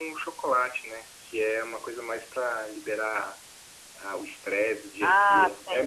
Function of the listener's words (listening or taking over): taking over